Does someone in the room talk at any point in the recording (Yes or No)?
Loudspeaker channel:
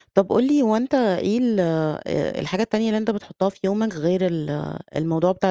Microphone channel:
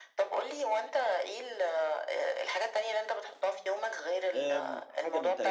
Yes